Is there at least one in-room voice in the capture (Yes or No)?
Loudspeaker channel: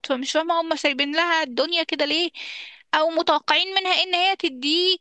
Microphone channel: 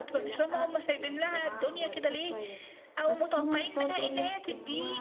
Yes